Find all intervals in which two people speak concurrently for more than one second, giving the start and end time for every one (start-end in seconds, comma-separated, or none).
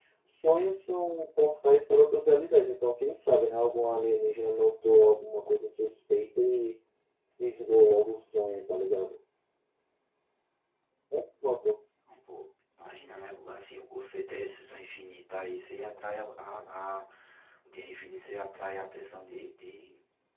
none